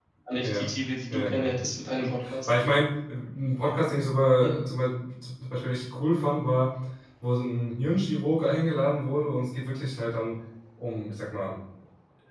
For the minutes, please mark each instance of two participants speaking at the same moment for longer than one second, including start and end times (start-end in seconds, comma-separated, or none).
none